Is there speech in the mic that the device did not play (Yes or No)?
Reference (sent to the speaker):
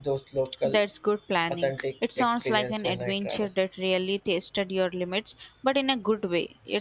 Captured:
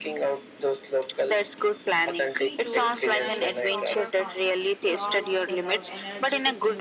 Yes